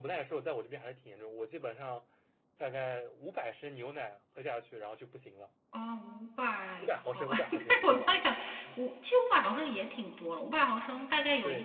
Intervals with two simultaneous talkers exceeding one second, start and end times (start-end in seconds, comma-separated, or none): 6.8-8.1